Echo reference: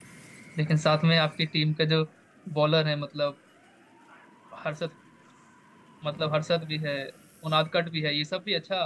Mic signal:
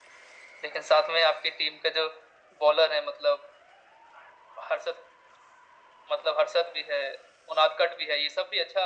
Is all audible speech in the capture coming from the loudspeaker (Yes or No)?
Yes